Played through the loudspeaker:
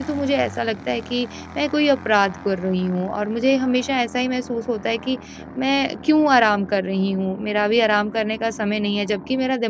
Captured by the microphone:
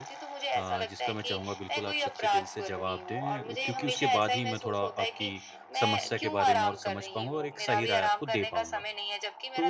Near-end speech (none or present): present